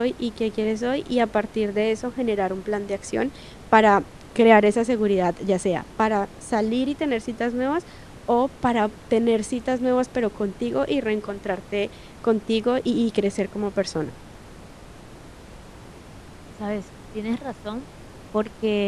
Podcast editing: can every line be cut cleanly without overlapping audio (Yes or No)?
Yes